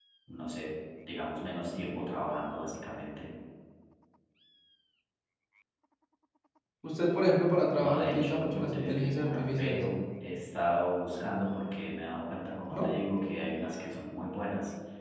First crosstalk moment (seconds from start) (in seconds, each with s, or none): 7.8 s